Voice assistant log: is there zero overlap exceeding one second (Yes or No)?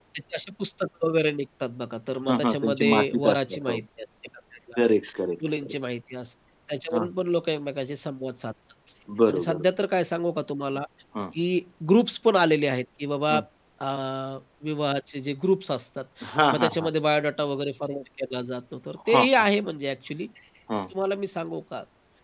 No